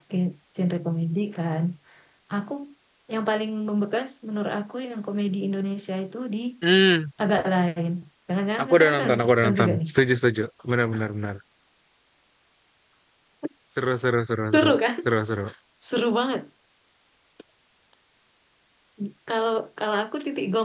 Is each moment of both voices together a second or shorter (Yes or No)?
No